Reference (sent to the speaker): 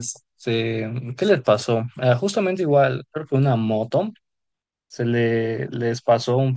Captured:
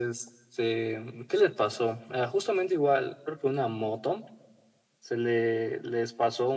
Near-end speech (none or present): none